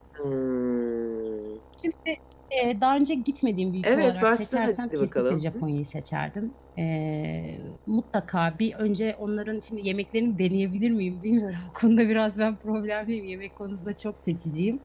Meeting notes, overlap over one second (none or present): present